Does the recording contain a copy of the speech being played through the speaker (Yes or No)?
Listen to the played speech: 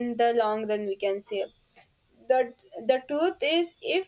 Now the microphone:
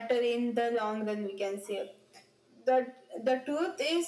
Yes